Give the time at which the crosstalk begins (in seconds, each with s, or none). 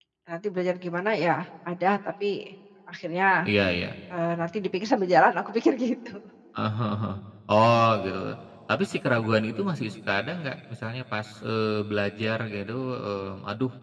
none